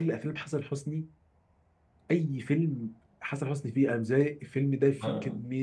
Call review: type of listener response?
taking over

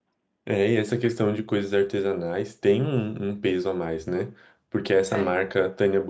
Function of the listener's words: listening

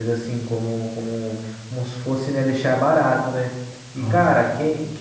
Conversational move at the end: listening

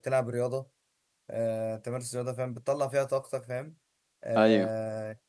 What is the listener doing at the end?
listening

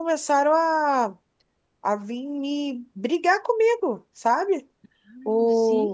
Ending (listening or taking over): listening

